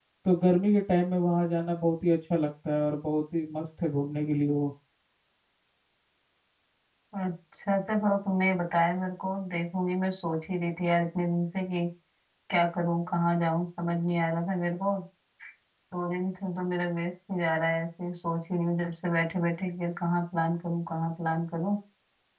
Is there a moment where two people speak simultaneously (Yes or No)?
No